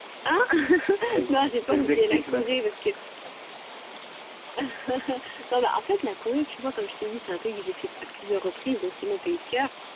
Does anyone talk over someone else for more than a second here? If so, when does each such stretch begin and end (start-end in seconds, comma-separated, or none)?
1.3-2.7